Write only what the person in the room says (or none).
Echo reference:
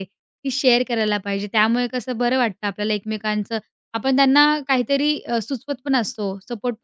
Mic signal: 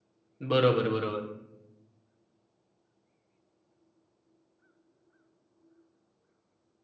बरोबर, बरोबर.